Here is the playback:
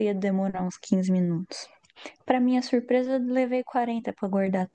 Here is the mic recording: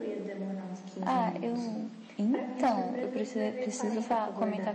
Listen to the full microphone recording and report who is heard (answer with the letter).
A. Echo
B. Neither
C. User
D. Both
D